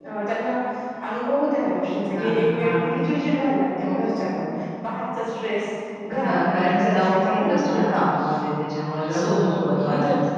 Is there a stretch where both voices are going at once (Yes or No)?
Yes